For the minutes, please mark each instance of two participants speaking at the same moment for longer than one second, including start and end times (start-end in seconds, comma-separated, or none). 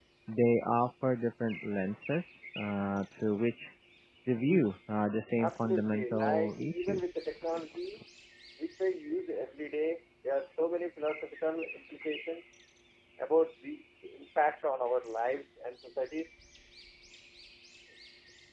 5.4-7.0